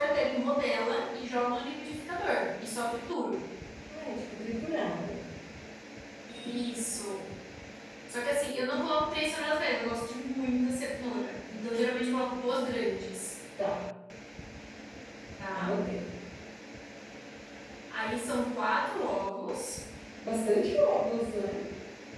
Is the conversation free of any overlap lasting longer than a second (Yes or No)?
Yes